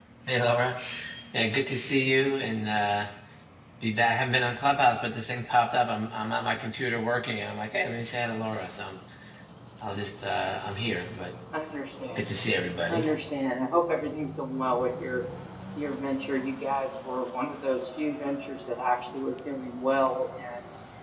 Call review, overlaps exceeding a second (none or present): none